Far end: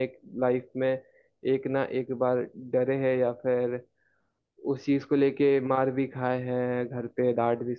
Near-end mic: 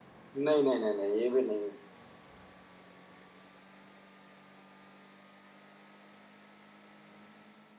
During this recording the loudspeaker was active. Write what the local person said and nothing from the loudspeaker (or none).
नहीं नहीं नहीं नहीं ये भी नहीं